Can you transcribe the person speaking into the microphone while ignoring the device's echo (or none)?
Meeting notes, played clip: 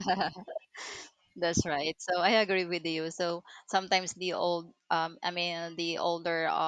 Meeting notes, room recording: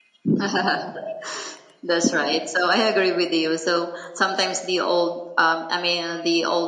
none